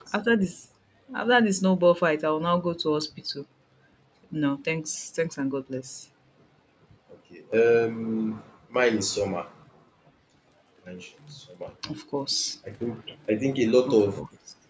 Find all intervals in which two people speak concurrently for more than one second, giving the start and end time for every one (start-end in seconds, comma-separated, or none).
none